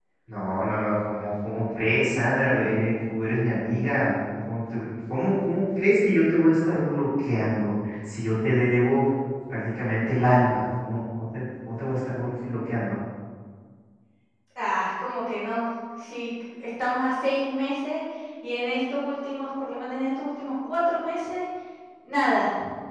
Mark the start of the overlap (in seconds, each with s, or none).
none